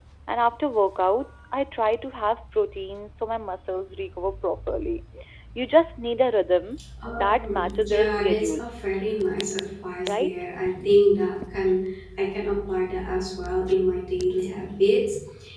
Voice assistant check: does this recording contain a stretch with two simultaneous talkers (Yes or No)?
Yes